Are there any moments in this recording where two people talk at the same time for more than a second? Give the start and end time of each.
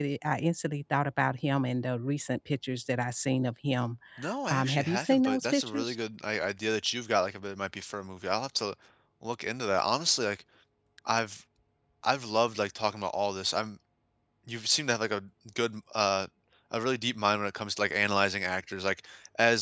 4.5-6.0

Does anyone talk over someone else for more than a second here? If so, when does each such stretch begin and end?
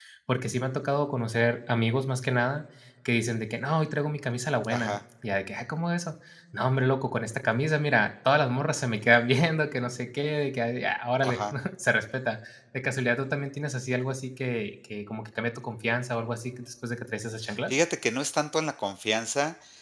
none

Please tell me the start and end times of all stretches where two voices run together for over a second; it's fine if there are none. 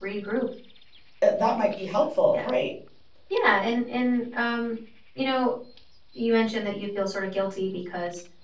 none

